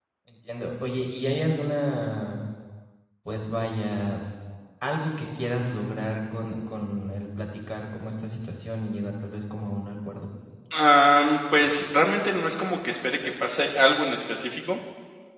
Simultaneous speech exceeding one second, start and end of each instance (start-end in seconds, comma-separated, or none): none